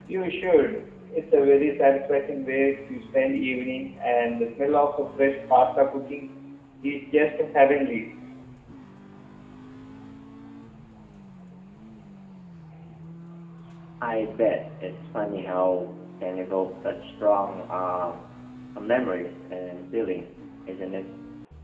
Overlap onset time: none

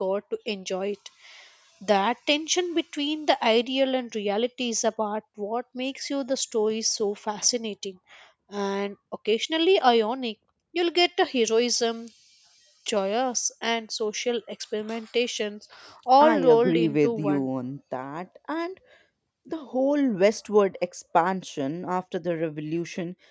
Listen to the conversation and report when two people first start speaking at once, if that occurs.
16 s

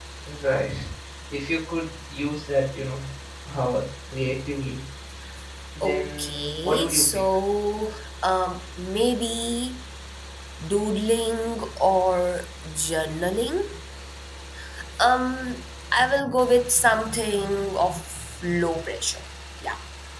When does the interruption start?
6 s

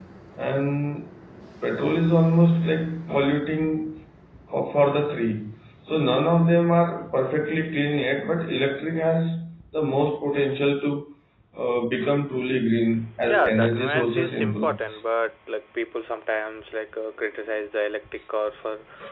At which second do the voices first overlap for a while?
13 s

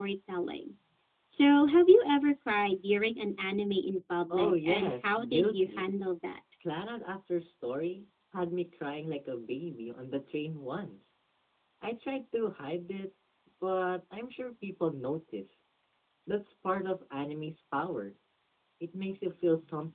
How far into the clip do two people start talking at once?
4 s

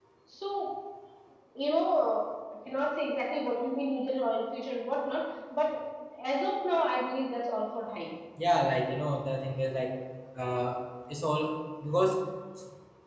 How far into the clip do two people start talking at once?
none

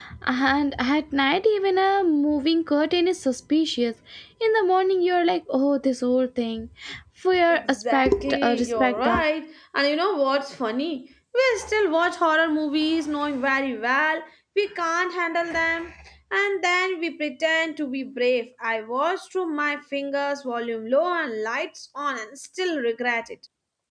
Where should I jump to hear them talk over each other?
8 s

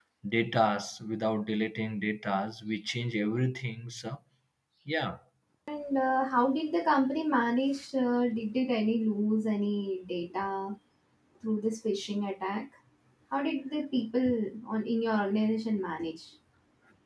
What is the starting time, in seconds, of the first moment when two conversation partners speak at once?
none

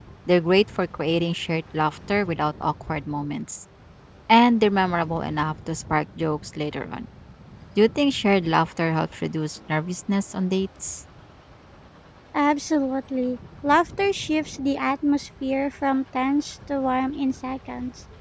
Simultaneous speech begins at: none

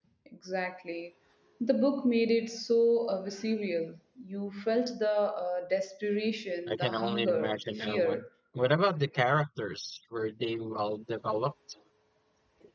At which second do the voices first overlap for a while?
7 s

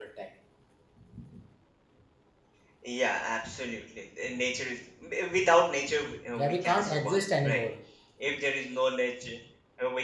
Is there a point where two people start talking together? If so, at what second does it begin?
6 s

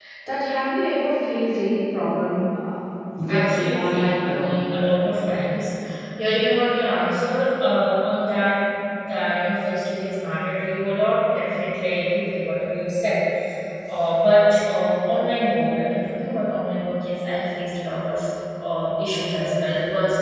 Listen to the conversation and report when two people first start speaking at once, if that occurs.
3 s

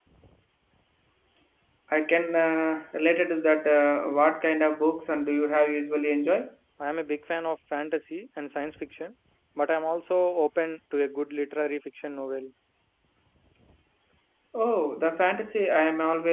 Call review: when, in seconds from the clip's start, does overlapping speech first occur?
none

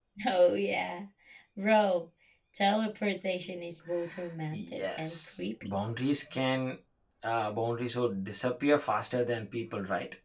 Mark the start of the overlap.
5 s

